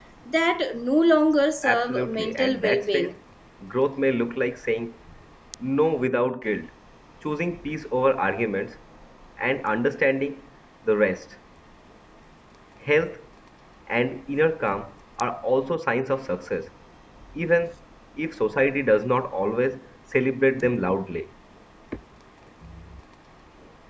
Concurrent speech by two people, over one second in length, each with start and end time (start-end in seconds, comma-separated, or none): 1.6-3.1